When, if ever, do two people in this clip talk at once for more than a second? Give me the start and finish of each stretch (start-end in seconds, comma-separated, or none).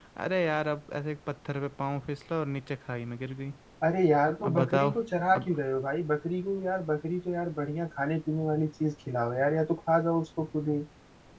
none